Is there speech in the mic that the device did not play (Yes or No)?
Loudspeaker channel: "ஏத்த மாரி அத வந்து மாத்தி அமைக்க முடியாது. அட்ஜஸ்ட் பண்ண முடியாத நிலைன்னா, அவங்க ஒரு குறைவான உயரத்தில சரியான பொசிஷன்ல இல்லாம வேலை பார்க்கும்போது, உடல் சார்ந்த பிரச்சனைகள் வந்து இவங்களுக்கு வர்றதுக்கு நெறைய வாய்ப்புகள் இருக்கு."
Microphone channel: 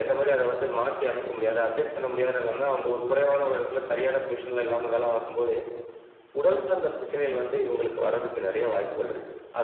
No